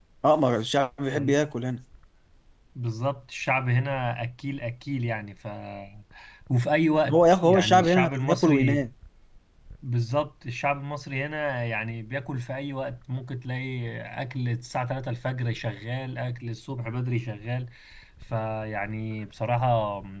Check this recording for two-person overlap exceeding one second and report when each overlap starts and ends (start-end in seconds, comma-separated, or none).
7.1-8.8